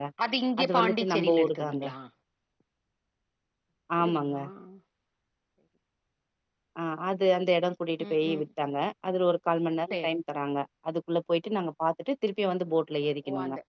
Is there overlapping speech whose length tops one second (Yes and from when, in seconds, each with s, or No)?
Yes, from 0.6 s